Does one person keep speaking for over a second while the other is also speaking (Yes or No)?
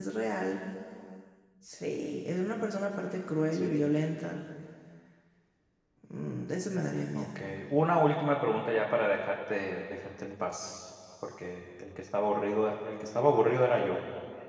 No